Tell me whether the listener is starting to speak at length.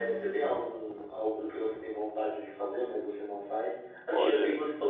No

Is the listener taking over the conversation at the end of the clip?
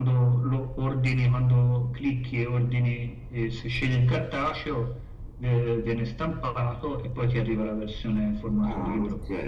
Yes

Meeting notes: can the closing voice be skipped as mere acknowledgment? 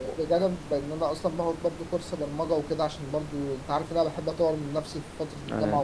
Yes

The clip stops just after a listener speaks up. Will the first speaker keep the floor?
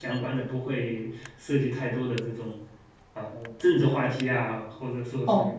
No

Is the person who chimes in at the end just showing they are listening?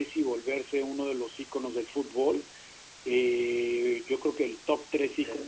Yes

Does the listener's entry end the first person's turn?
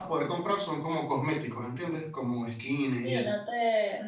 Yes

